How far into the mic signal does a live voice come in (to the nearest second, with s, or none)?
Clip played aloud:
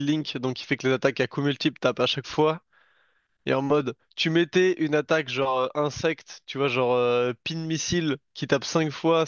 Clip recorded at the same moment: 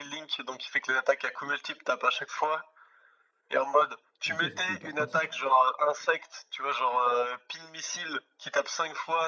4 s